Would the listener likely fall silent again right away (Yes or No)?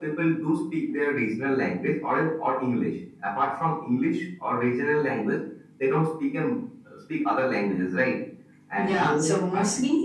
No